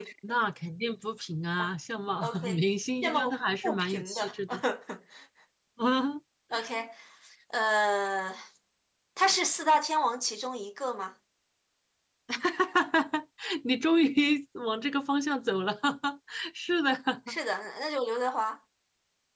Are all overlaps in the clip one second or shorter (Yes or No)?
No